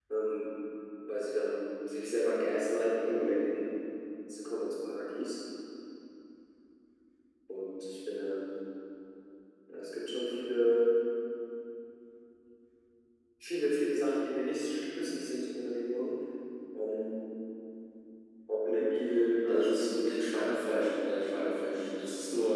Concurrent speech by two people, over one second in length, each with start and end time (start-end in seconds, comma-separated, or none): 19.4-20.8